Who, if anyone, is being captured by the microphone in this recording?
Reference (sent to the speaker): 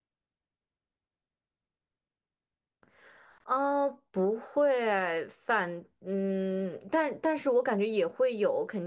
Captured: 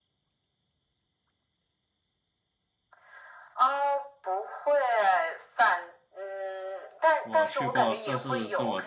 both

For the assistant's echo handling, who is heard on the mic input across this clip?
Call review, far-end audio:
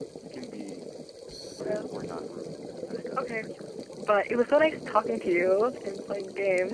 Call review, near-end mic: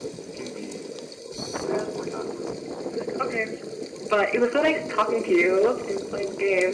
echo only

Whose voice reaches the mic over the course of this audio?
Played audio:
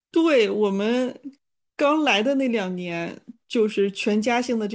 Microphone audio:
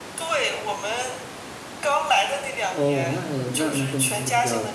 both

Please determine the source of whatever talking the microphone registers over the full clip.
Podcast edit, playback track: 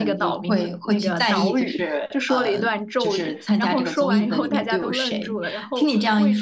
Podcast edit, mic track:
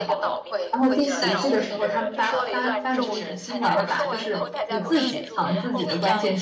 both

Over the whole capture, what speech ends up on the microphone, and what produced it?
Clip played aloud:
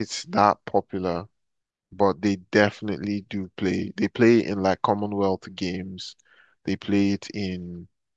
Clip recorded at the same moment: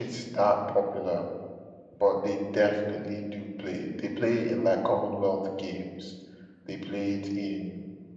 echo only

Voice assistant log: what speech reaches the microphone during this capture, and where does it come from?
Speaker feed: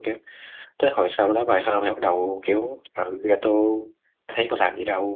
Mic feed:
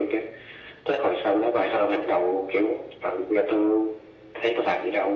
echo only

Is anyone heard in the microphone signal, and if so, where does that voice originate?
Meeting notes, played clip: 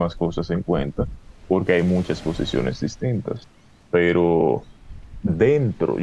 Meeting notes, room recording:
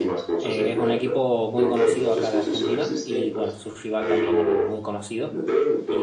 both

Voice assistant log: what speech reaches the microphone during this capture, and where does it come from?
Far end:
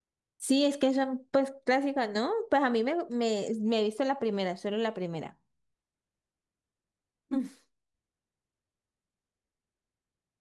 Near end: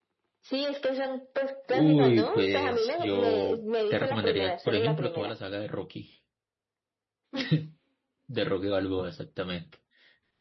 both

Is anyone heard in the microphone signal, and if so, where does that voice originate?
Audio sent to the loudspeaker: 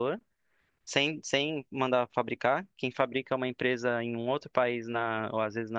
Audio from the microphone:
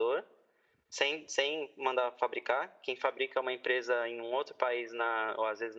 echo only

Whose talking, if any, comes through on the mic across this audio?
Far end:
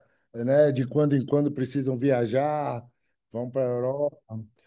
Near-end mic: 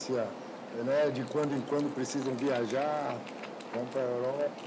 echo only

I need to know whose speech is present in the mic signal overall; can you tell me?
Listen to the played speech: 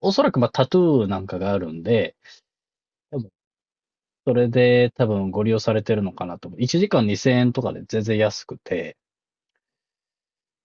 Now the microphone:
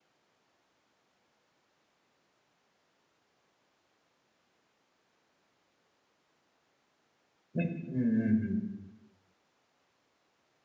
user only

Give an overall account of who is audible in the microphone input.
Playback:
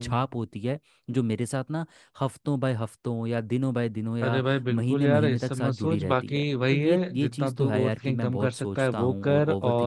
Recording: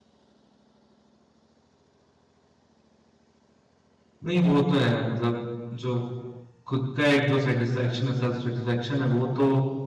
user only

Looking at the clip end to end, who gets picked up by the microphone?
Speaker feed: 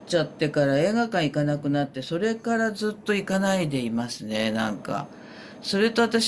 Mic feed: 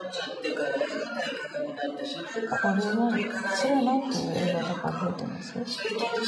both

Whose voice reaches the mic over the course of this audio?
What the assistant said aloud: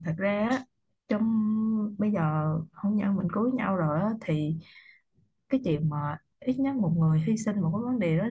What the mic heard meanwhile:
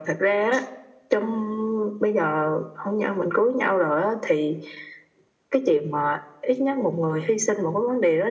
echo only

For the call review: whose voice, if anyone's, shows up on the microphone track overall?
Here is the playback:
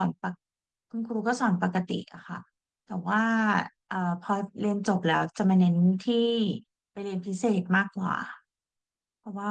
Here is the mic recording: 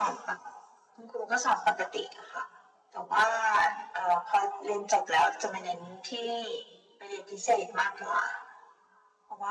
echo only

